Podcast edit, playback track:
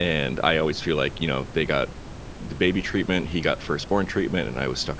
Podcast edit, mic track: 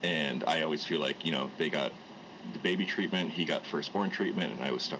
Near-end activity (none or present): none